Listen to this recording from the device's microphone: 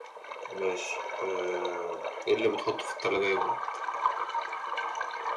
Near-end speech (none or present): none